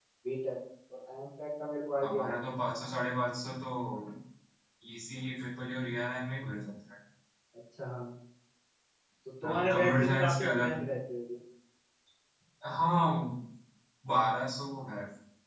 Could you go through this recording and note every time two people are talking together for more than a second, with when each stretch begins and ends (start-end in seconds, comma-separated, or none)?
9.4-10.8